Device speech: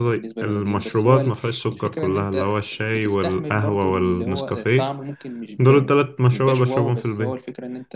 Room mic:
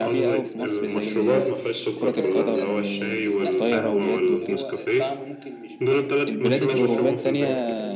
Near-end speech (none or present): present